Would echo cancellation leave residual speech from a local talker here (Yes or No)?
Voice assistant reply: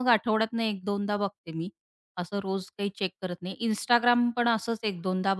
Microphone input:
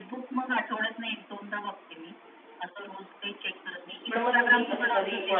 Yes